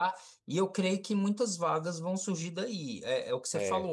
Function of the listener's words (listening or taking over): listening